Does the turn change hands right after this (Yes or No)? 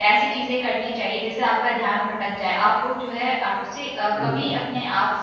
No